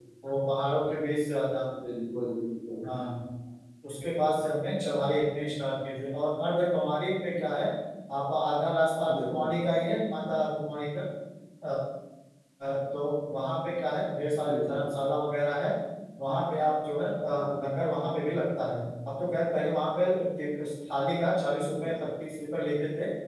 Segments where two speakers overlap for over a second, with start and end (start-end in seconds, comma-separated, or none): none